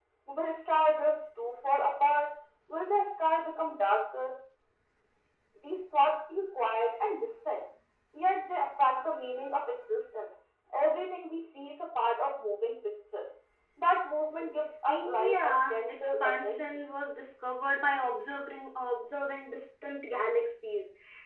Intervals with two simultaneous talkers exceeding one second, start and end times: 14.9-16.6

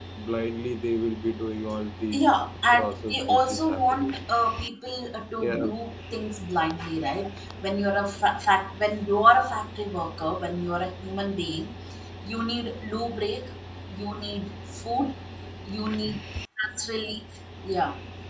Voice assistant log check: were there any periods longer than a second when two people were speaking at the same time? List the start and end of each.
2.7-4.2

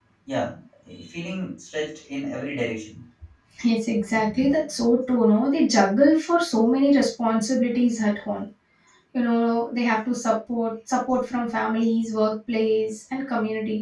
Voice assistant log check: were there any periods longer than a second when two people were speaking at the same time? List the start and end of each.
none

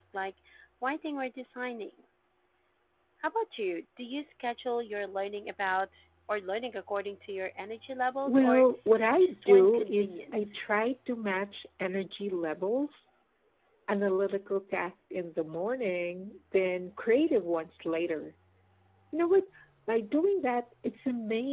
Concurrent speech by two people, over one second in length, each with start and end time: 9.2-10.6

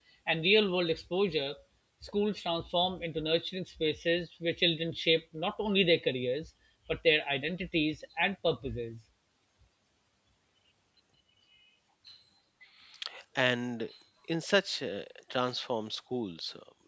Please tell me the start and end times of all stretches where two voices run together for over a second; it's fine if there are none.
none

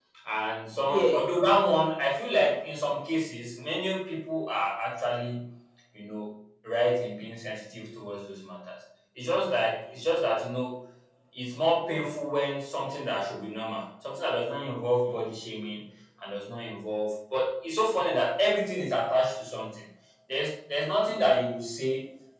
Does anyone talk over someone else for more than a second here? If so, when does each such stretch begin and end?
none

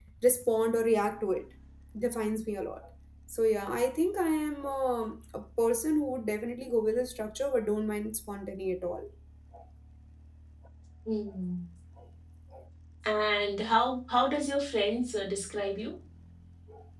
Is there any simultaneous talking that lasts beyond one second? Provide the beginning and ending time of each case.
none

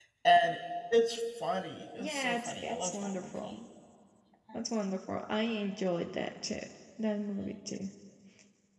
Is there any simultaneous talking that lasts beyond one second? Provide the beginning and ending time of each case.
2.0-3.5

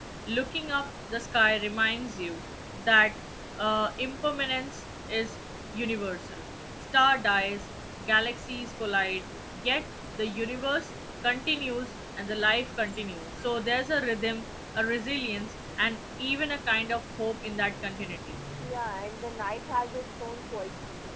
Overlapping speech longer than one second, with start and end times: none

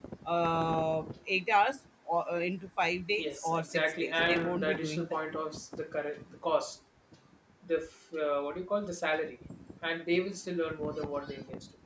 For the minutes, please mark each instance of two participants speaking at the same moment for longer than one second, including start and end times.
3.1-5.2

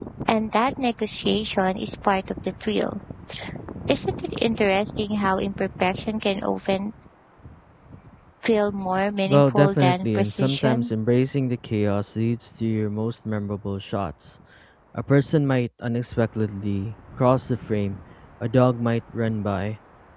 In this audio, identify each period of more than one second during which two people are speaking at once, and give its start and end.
9.3-10.9

